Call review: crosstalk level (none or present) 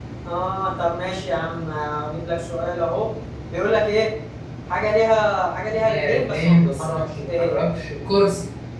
present